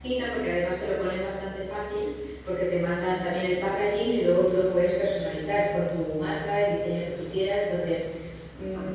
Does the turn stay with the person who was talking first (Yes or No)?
Yes